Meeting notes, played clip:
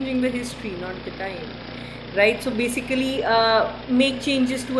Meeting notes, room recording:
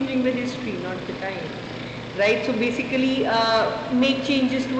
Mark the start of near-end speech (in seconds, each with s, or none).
none